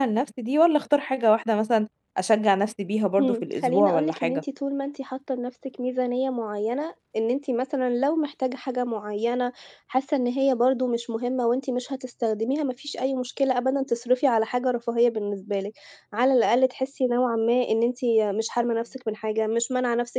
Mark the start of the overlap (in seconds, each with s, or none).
3.2 s